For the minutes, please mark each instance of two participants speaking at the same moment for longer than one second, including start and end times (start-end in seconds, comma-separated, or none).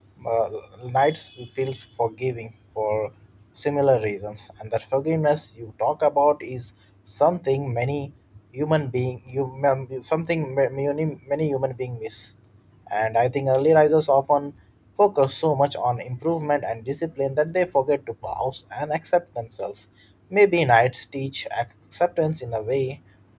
none